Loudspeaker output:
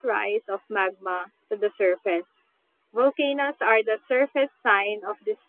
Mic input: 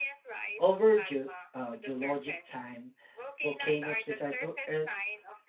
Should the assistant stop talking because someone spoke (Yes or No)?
Yes